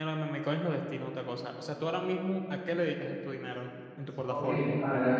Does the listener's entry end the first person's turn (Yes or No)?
Yes